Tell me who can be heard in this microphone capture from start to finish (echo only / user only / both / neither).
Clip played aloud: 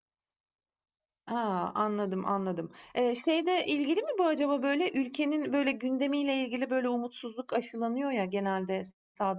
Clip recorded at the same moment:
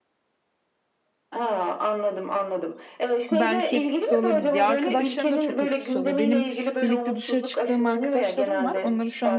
both